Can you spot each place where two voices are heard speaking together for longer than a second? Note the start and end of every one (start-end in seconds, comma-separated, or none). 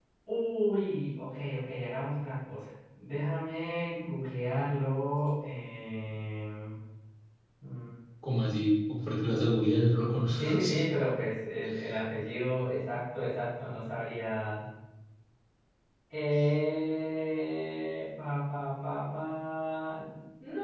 none